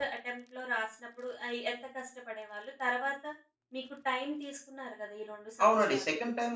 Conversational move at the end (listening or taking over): taking over